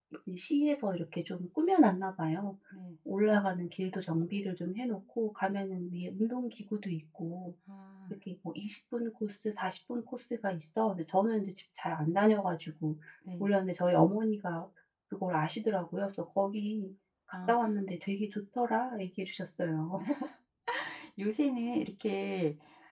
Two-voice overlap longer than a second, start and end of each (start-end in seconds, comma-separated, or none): none